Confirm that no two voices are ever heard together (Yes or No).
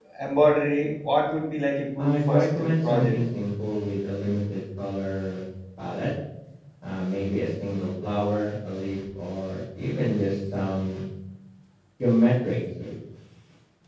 No